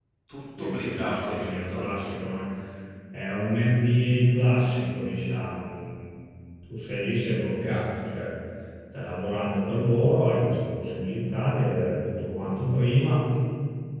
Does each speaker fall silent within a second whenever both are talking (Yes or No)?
No